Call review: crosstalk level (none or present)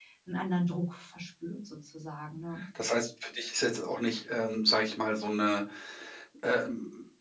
none